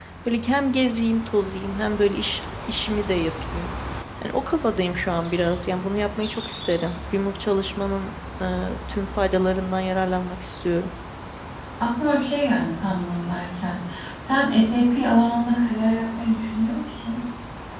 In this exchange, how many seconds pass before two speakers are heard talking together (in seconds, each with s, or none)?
none